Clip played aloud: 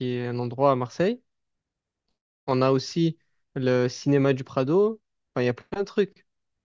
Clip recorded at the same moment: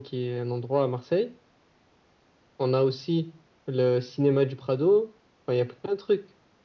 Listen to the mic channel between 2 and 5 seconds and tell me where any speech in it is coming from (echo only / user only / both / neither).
echo only